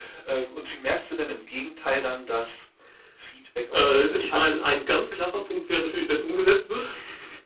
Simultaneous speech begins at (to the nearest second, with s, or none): 4 s